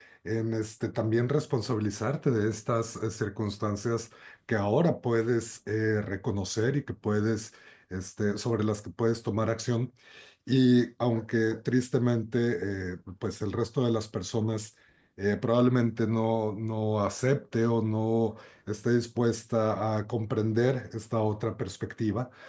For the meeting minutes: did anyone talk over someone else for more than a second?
No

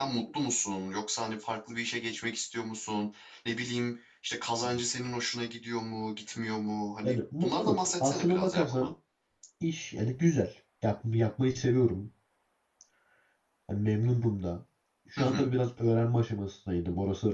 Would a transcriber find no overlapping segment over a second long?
No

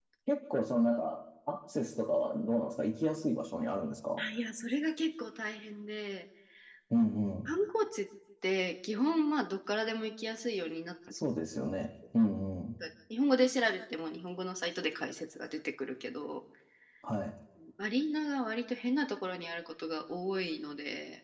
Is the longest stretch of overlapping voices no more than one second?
Yes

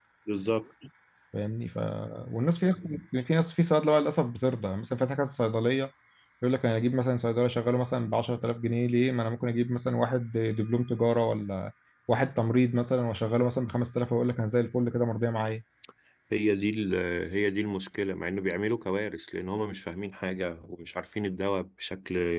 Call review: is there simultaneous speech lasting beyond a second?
No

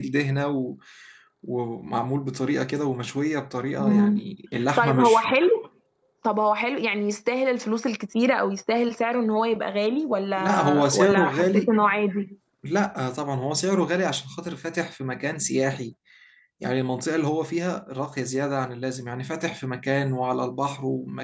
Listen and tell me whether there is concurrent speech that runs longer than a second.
Yes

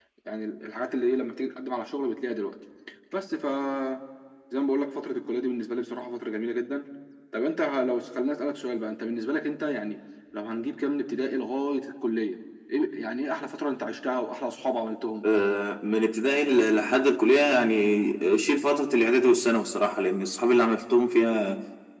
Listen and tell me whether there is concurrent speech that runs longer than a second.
No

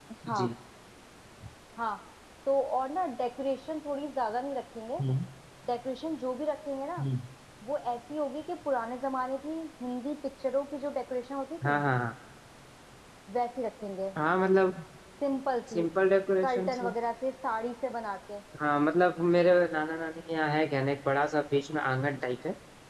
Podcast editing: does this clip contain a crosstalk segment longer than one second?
No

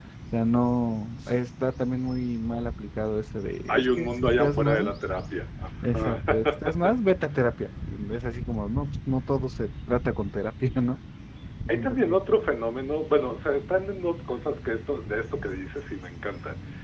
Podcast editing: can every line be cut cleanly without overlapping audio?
No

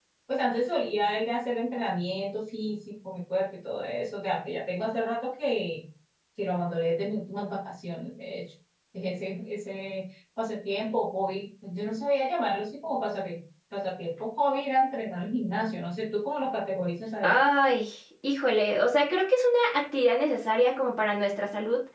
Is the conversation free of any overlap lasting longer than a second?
Yes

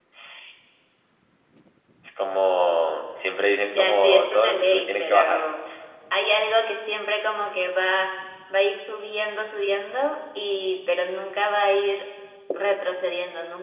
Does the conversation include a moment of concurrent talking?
Yes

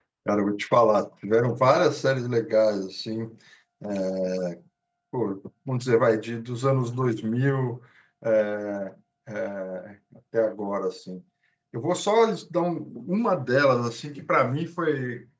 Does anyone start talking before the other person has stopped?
No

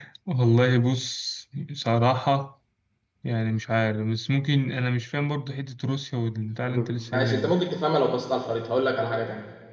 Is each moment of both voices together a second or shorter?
Yes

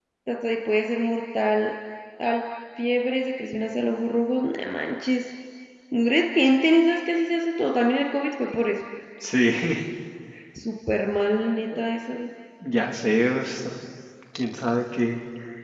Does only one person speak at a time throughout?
Yes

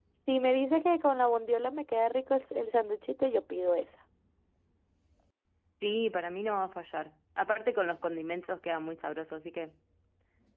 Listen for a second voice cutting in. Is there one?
No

